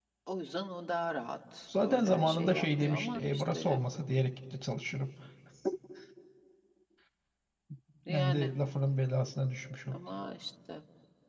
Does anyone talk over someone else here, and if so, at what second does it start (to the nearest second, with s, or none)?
2 s